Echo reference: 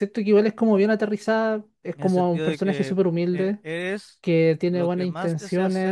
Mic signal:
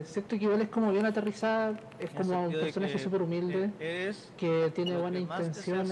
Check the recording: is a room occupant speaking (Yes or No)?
No